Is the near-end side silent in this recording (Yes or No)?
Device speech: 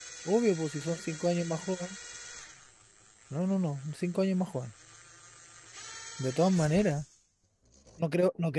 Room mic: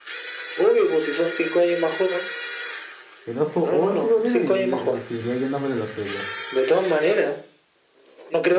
No